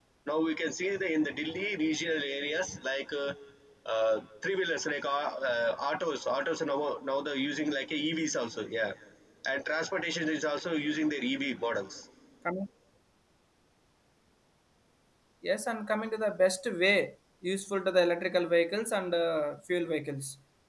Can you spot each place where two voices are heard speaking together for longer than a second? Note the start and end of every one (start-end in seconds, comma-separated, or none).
none